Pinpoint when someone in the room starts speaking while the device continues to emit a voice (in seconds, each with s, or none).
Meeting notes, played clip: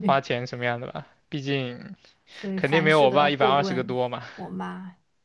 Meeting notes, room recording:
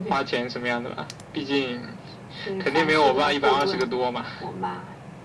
none